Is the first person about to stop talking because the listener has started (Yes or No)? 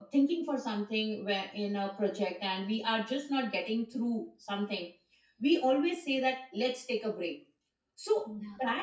No